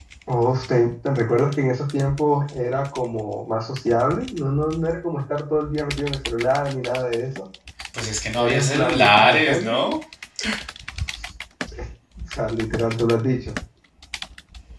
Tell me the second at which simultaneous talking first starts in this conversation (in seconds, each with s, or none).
8.4 s